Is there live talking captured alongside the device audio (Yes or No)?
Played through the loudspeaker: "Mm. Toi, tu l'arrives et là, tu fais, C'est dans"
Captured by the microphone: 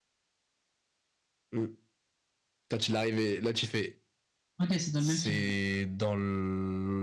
Yes